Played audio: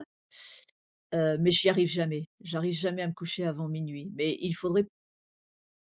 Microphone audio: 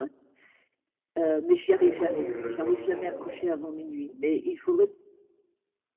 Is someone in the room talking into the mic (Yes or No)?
Yes